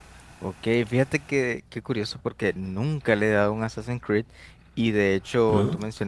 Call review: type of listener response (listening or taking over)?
listening